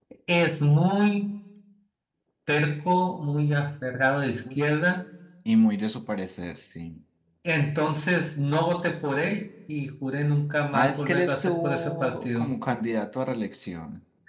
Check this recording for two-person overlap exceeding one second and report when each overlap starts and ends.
10.7-12.5

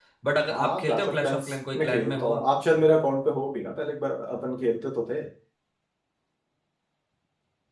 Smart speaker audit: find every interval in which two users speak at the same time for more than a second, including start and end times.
0.5-2.4

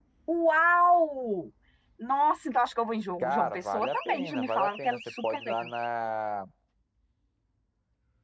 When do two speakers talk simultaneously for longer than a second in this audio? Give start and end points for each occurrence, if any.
3.2-5.7

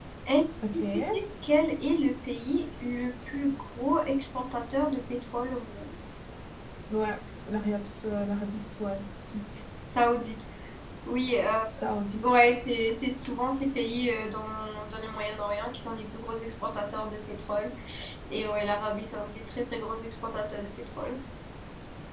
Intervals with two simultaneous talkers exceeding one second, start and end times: none

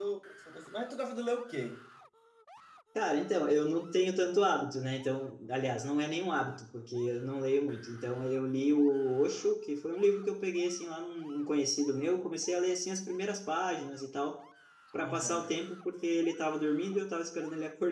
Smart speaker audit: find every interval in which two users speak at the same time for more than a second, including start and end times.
none

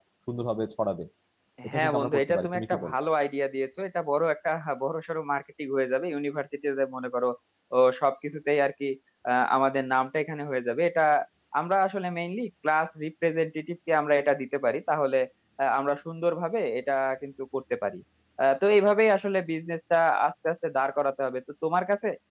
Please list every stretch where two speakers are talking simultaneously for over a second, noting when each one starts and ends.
1.7-3.0

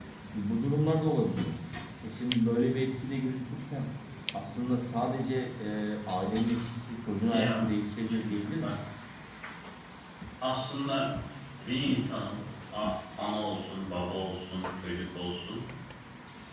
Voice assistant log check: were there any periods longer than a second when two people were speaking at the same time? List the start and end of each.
7.3-8.8

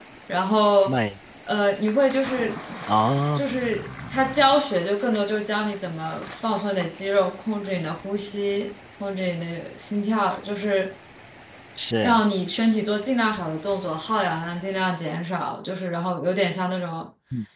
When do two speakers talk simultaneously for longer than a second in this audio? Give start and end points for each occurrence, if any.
none

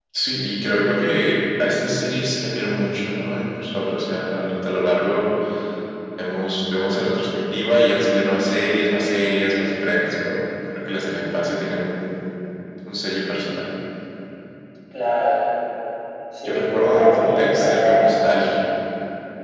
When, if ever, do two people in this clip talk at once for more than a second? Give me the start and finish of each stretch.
16.4-18.1

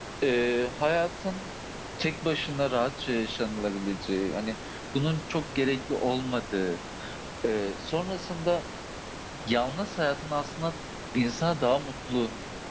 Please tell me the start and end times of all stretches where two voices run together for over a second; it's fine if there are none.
none

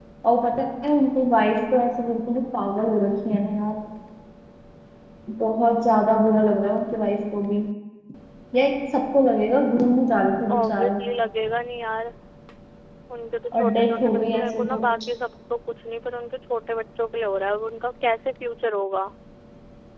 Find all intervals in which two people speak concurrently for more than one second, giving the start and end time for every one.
13.6-14.8

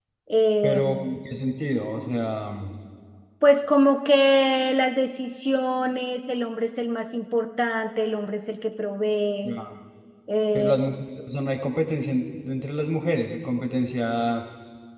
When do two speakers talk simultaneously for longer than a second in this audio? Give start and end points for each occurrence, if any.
none

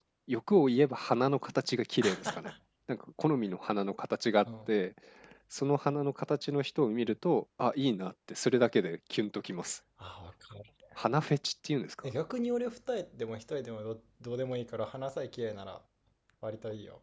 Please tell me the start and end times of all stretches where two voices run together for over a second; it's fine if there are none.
none

